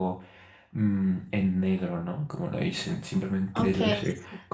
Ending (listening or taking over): listening